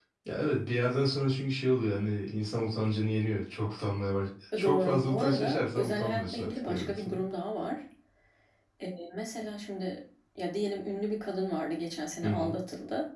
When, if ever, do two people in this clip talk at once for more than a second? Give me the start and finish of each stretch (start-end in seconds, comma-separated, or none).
4.5-7.2